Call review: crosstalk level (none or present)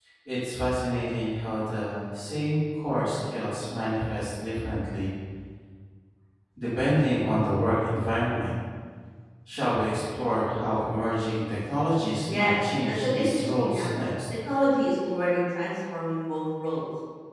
present